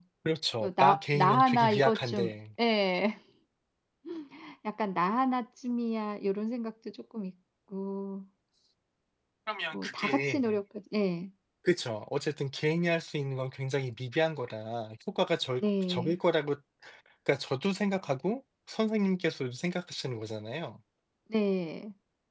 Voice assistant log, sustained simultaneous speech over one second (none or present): present